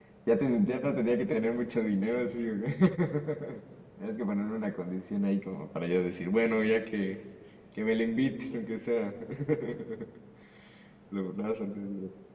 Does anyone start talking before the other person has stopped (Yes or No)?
No